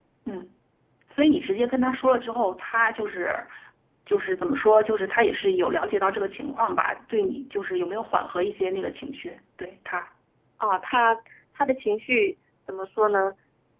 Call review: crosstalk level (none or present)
none